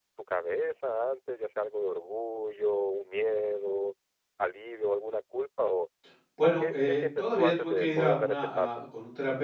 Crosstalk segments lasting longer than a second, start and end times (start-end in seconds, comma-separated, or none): 6.4-8.8